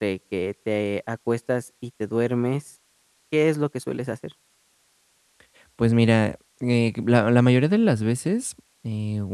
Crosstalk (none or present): none